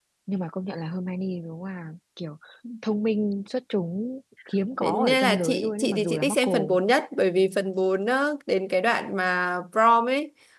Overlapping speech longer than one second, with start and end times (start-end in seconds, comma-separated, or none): 4.8-6.8